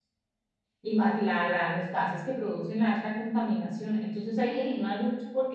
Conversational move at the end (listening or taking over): listening